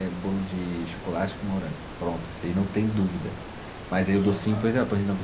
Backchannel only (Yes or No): Yes